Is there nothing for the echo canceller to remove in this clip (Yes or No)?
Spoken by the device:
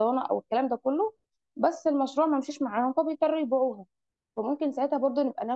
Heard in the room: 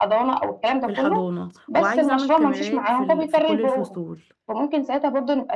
No